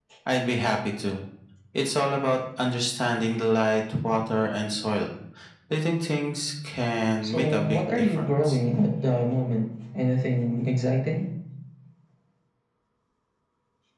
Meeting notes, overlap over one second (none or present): present